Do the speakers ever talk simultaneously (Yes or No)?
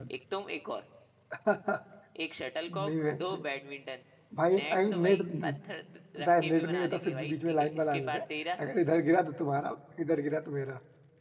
Yes